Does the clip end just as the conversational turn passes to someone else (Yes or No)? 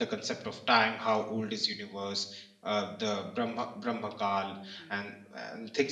No